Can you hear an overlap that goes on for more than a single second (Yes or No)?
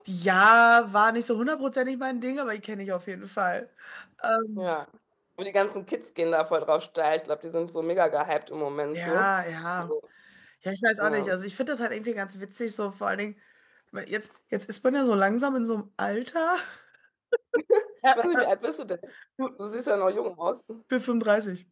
No